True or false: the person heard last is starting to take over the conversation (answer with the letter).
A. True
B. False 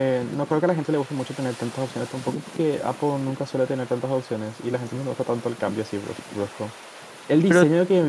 B